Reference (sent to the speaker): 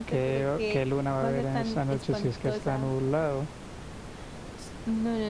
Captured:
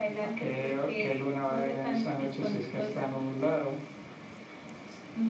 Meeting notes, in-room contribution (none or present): none